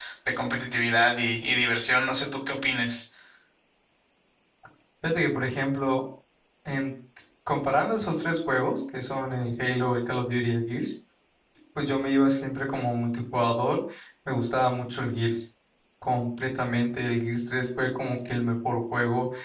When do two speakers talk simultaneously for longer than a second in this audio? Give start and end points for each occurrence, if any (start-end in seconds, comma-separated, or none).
none